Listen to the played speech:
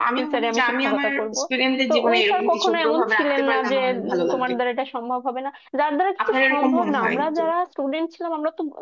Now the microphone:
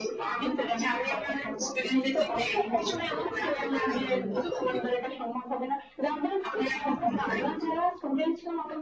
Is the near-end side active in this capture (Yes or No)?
No